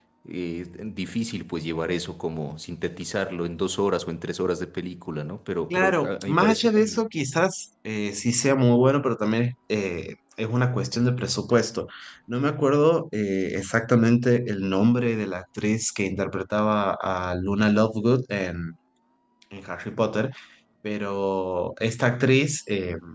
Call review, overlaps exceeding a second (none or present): present